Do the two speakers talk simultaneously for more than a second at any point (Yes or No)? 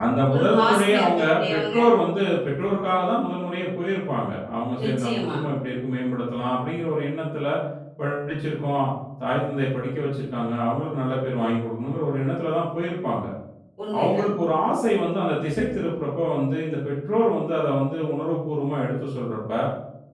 Yes